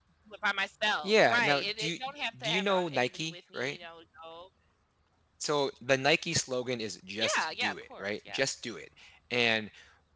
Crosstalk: present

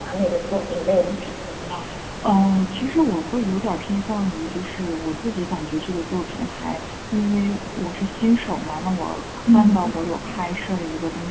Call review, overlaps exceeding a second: none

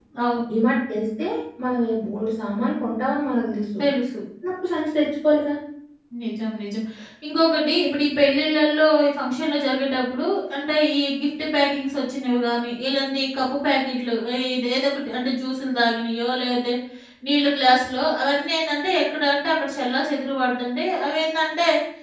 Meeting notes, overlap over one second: none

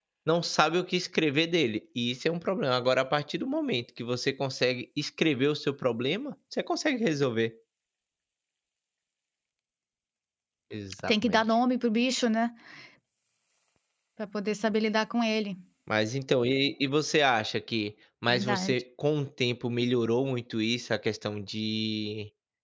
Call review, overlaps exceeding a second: none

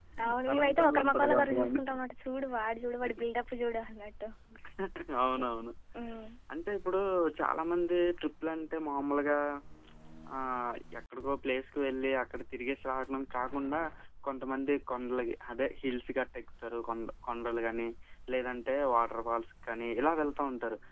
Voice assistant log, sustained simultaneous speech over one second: present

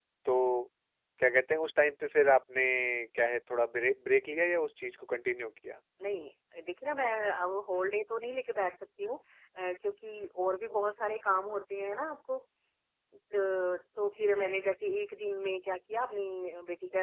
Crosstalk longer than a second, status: none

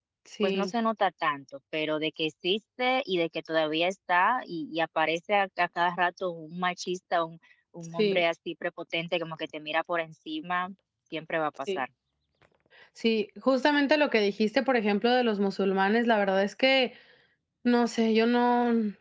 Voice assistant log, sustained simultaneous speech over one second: none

